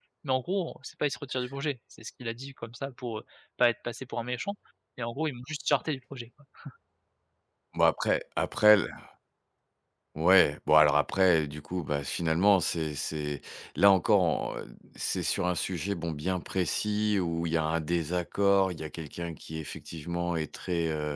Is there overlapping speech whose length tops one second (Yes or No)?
No